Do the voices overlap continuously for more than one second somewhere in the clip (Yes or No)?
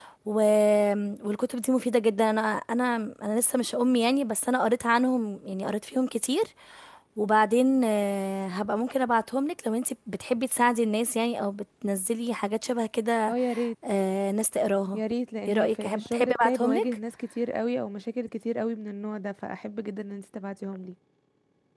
Yes